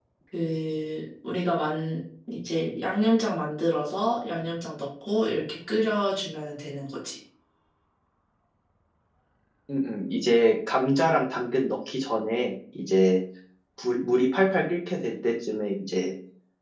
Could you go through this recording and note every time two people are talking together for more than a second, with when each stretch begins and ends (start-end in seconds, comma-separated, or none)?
none